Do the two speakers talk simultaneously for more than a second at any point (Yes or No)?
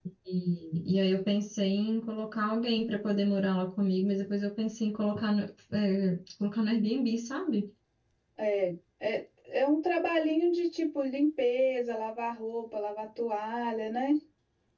No